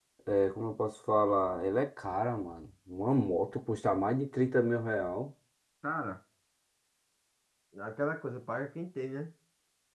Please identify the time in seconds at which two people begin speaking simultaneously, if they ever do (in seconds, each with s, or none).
none